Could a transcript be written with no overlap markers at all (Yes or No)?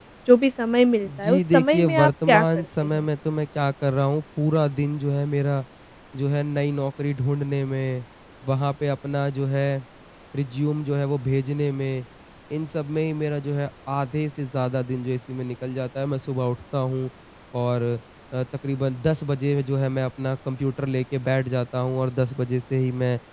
No